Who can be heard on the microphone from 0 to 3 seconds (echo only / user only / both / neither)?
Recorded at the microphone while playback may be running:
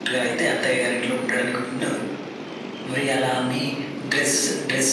user only